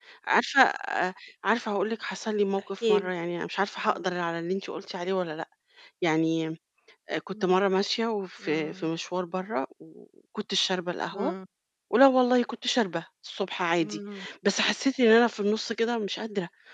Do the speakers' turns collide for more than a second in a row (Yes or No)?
No